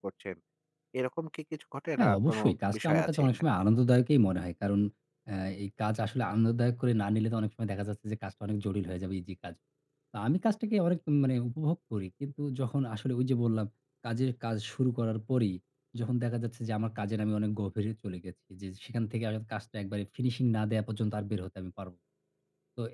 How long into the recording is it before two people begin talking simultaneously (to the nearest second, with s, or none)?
2 s